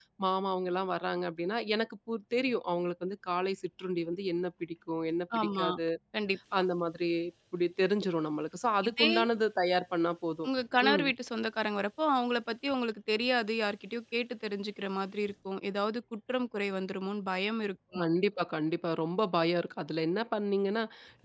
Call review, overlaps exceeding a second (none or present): none